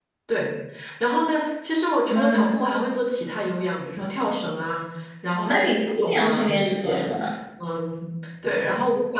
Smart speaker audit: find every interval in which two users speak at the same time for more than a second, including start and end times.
5.4-7.1

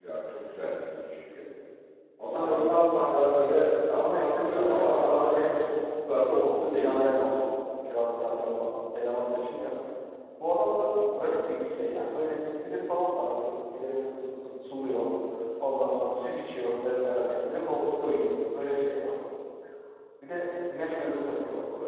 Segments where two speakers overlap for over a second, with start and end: 3.9-6.9

